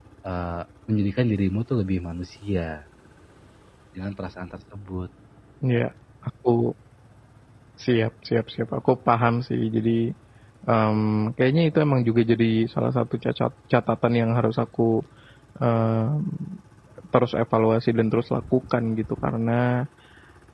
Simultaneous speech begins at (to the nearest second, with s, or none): none